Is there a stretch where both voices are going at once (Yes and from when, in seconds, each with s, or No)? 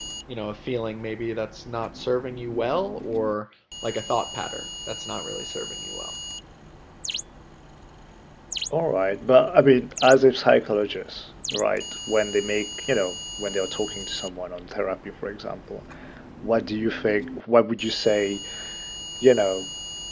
No